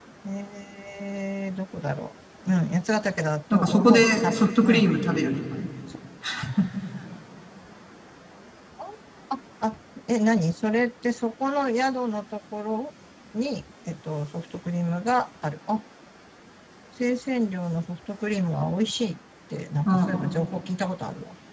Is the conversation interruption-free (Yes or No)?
No